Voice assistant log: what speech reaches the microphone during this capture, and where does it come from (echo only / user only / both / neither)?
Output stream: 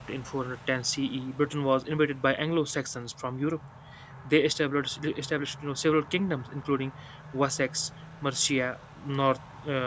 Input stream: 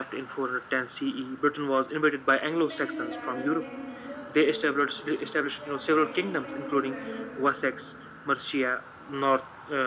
both